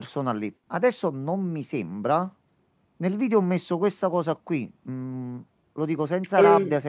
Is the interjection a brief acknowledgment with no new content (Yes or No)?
Yes